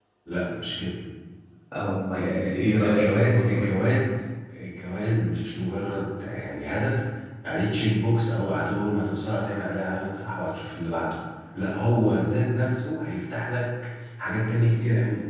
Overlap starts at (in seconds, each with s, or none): 2.1 s